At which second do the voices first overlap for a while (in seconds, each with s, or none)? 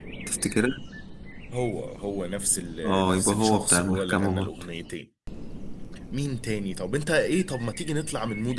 2.8 s